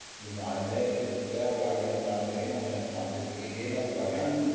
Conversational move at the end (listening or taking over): taking over